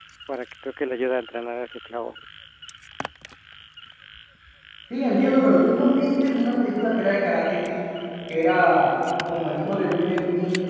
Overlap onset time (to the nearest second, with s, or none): none